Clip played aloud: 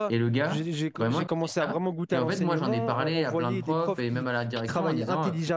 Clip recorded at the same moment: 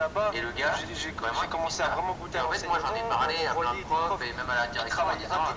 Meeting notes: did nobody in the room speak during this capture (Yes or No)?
Yes